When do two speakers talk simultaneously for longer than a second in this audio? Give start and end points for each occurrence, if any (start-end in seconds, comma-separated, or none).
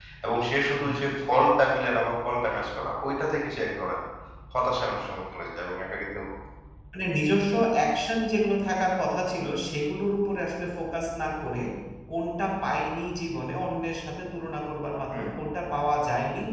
none